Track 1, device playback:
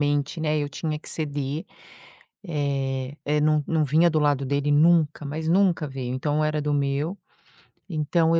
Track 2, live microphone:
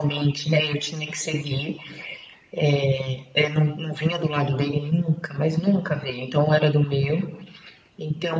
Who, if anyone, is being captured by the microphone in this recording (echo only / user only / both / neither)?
echo only